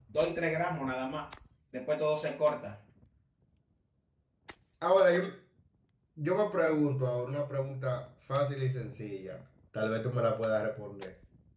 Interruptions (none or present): none